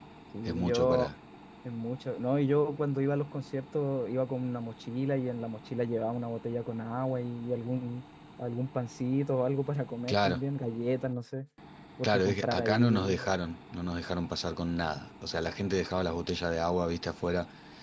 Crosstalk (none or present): present